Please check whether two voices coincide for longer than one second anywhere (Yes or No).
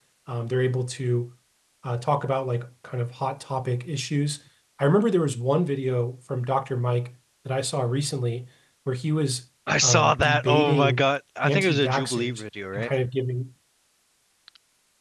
Yes